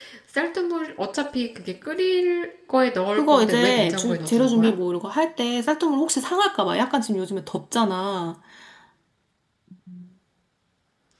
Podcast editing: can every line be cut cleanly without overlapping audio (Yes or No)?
No